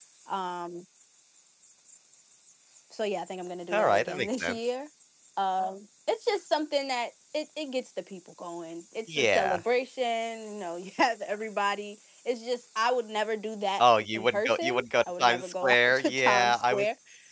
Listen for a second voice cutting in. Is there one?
Yes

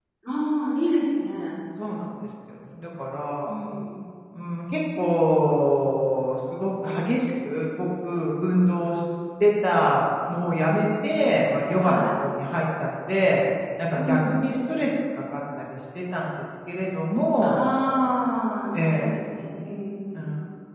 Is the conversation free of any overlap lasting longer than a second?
Yes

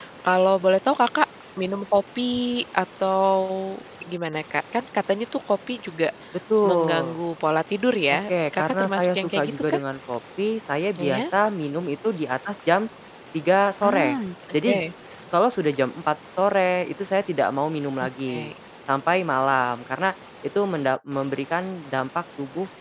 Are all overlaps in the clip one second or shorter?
No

